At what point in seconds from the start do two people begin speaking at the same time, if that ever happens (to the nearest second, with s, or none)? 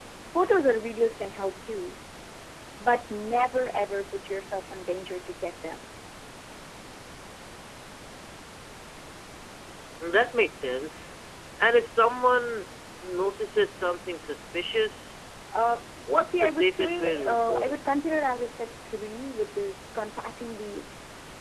16 s